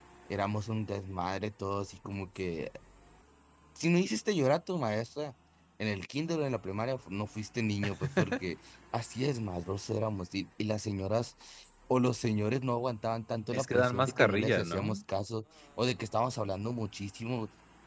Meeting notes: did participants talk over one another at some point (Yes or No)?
Yes